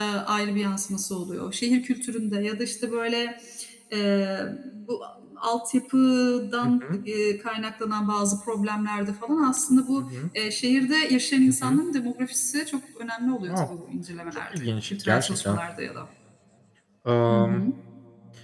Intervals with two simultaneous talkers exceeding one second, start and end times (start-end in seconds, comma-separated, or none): 14.3-15.6